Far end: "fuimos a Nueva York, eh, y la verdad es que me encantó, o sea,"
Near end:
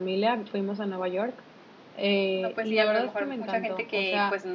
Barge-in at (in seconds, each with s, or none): 2.3 s